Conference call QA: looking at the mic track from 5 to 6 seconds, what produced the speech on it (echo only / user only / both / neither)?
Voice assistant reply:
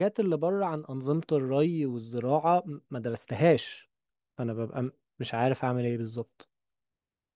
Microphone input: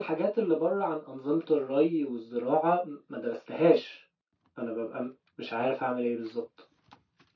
echo only